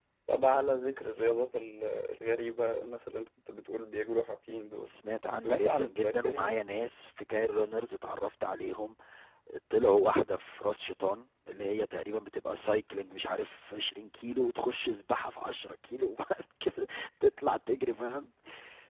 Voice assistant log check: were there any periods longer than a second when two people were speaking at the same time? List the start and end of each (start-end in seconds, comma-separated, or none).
5.4-6.6